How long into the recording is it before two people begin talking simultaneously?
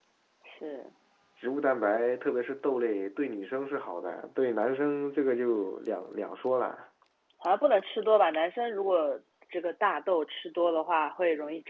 none

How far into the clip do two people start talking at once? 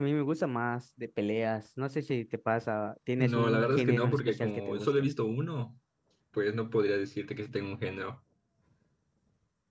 3.2 s

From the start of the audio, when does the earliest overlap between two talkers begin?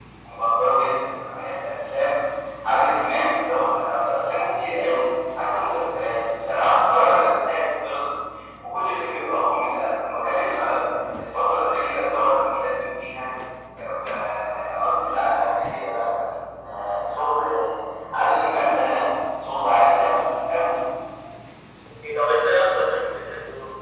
none

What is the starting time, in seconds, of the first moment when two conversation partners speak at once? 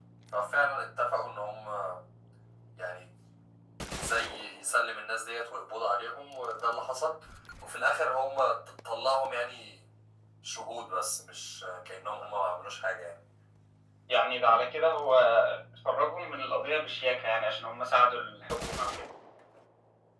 none

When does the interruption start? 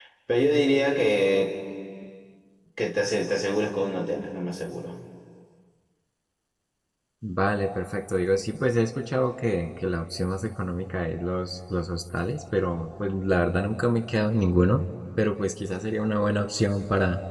none

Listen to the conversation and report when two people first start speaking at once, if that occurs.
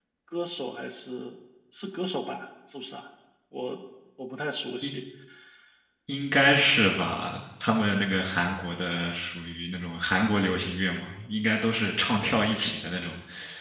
none

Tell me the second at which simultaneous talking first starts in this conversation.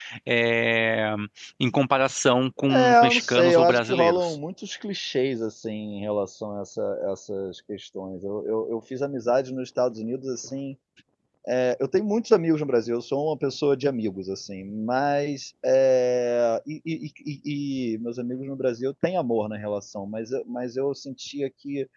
2.7 s

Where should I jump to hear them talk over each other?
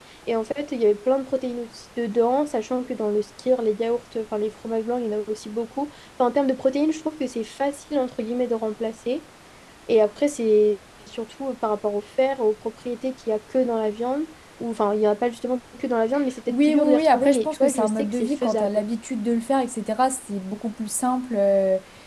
16.5 s

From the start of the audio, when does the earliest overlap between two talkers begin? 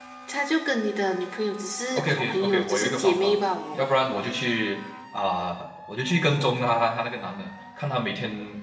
1.9 s

